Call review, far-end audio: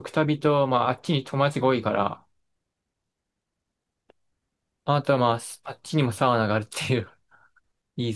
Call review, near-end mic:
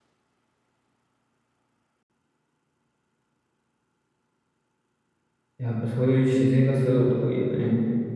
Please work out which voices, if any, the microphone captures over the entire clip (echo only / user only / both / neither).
user only